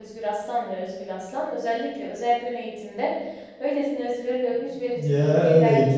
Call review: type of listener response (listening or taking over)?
taking over